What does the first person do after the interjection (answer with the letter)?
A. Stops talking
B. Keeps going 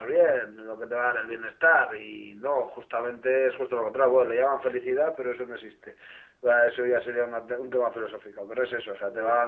B